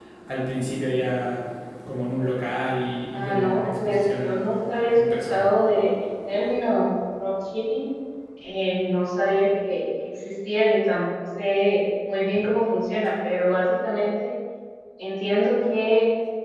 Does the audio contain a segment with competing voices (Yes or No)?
Yes